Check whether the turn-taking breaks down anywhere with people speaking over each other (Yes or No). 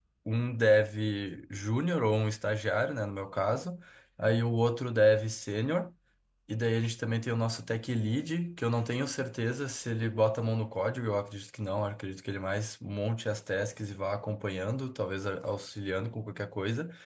No